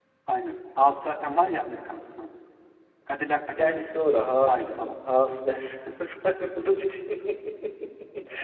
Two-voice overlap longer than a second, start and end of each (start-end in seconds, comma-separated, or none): 3.6-5.0